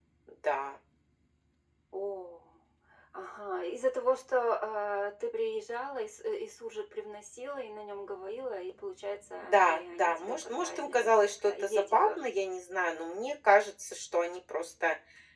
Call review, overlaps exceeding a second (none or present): present